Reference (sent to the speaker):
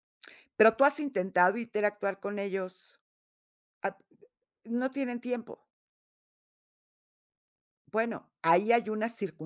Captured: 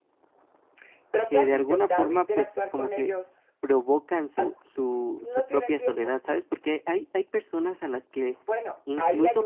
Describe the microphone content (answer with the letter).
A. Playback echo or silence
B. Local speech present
B